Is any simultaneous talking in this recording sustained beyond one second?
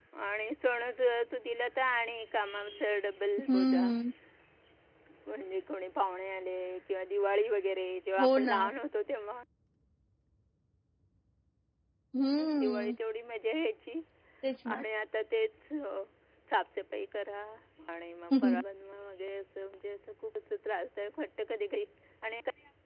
No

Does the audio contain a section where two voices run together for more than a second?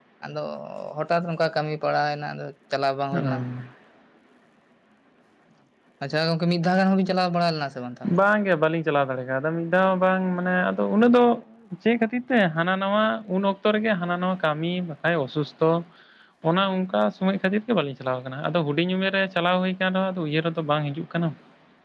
No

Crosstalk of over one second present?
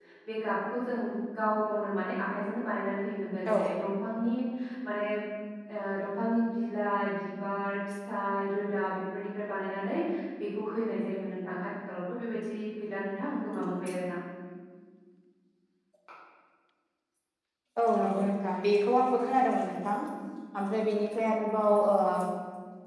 No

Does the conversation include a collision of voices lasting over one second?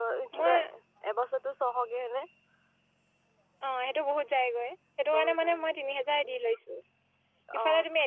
No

